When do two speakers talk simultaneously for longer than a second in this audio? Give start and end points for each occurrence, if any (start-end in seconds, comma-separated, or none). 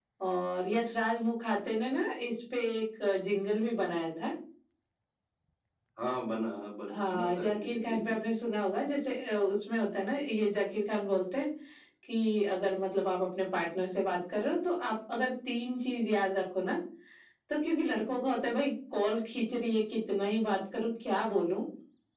6.9-8.2